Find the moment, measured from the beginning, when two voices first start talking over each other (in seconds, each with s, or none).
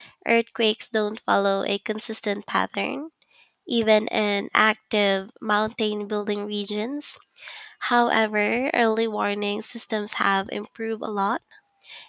none